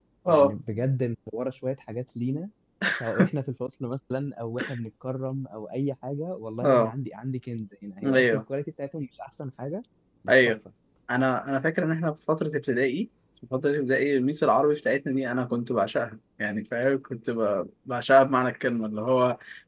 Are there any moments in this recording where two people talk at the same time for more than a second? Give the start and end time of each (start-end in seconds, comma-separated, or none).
none